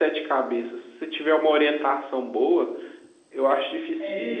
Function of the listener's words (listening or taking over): listening